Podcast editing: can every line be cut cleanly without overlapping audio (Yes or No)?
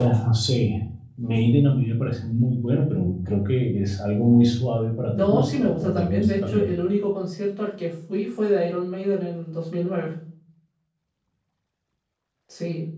No